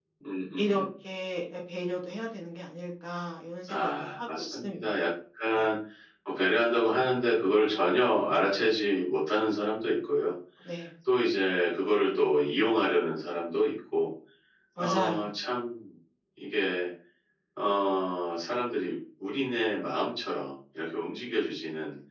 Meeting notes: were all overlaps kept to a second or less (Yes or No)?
No